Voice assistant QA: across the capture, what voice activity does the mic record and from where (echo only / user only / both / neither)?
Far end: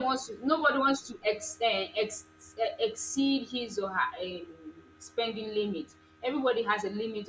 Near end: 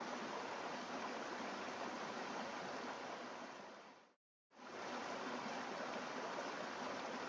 neither